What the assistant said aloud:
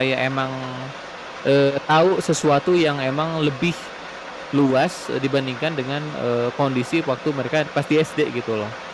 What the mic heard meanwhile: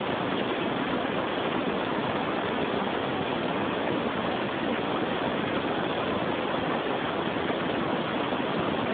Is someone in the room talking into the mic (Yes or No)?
No